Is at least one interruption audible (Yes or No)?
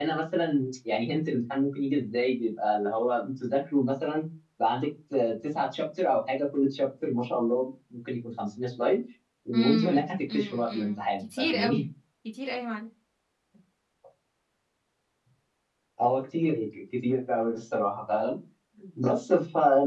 Yes